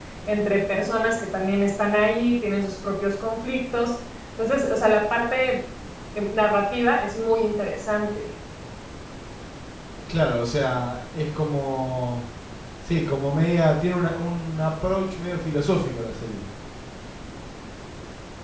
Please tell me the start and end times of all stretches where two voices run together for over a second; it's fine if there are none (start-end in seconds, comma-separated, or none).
none